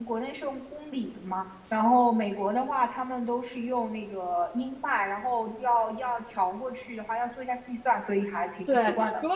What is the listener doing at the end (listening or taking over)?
taking over